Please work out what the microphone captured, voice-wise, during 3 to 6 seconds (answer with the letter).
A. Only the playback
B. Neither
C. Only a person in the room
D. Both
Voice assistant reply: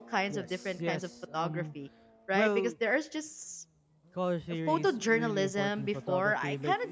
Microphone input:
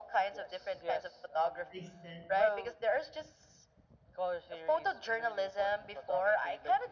A